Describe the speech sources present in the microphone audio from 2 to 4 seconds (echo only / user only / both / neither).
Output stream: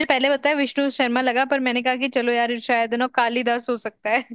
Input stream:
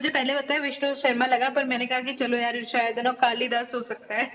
echo only